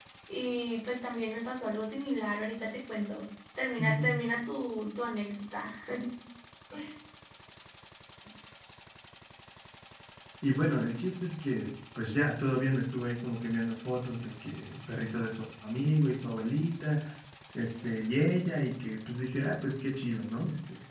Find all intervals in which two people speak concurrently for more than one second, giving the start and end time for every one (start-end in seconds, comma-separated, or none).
none